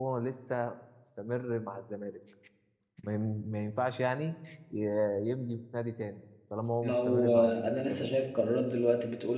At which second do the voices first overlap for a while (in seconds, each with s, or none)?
6.8 s